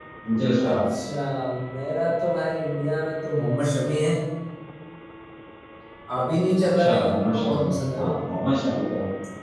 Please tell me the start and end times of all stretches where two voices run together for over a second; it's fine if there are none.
6.8-8.1

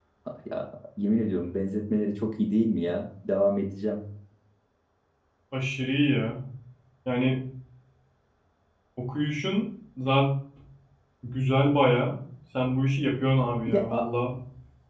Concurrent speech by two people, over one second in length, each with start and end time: none

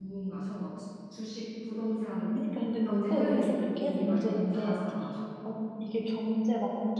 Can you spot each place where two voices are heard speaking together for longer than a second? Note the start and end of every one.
3.1-4.8

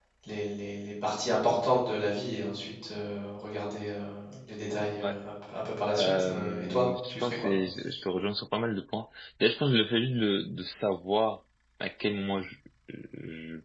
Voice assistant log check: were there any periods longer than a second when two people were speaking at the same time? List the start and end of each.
6.0-7.5

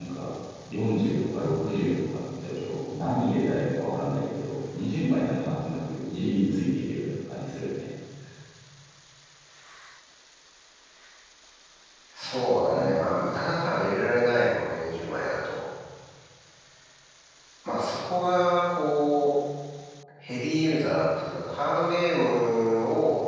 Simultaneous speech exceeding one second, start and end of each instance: none

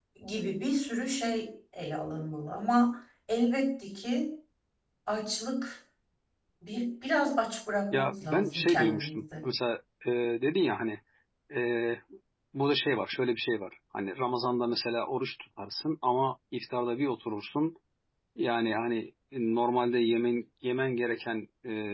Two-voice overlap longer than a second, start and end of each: 7.9-9.4

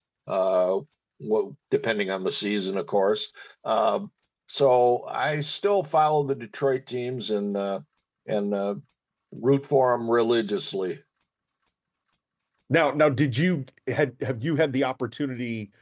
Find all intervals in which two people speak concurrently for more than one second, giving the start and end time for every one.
none

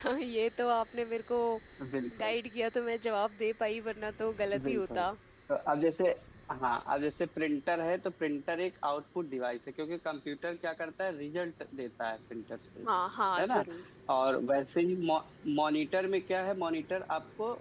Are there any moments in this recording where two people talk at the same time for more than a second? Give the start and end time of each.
none

